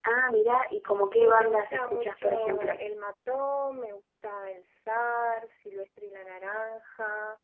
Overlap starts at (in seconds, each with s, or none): 1.2 s